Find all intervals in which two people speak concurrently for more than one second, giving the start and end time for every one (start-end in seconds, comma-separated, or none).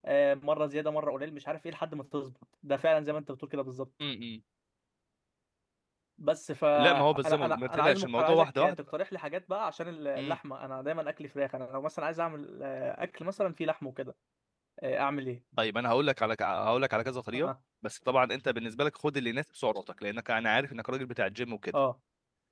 6.8-8.8